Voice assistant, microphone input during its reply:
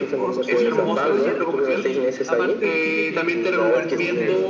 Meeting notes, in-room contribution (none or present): present